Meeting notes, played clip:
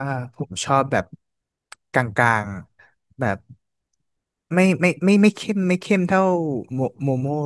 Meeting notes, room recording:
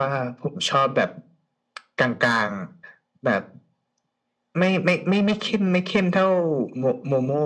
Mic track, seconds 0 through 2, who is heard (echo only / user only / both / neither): echo only